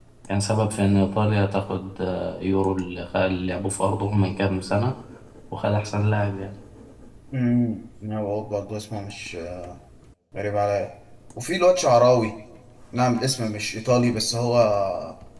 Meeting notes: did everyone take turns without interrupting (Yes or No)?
Yes